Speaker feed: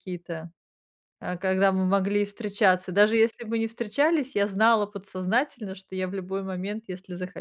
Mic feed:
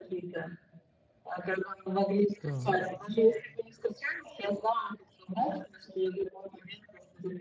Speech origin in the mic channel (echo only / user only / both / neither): both